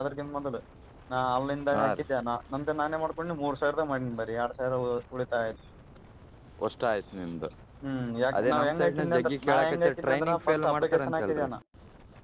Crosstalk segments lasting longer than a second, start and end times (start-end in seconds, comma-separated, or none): 8.4-11.5